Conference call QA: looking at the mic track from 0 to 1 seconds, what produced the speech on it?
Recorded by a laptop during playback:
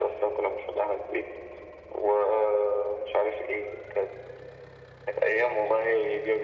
echo only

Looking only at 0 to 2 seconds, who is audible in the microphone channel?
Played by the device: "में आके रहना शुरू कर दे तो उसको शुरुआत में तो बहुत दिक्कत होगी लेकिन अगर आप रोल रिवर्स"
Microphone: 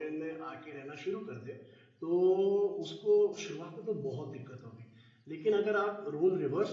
echo only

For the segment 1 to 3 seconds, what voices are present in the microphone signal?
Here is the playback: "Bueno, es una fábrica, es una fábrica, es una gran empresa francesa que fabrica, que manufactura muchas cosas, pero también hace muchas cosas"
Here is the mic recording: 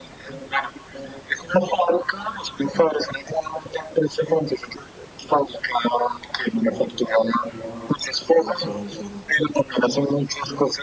echo only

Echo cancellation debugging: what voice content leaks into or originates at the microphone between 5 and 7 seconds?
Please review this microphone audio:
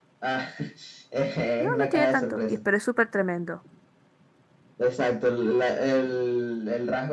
echo only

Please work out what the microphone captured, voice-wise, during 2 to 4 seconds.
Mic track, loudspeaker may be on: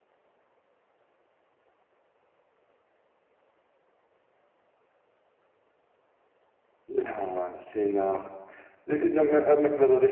neither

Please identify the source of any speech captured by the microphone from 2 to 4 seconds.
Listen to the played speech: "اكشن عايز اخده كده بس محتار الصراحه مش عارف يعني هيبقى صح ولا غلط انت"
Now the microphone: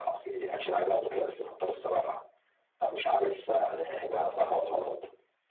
echo only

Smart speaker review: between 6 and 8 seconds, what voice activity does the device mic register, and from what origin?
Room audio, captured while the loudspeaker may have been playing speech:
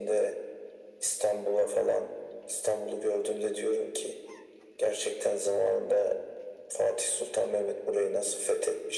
echo only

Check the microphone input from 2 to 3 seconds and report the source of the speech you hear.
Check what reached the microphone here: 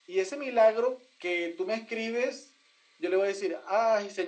echo only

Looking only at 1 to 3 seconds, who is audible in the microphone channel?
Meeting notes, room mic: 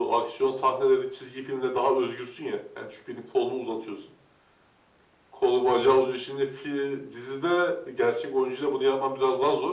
echo only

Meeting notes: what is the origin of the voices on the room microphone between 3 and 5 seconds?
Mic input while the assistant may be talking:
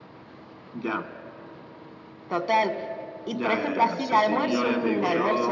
both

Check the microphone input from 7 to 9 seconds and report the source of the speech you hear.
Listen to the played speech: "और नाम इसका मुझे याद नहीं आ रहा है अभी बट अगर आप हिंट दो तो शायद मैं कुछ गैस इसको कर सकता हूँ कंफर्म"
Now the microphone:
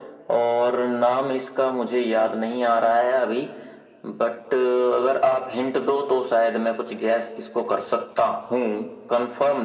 echo only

